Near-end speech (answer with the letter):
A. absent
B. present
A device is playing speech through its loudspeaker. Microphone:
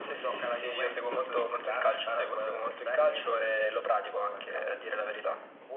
A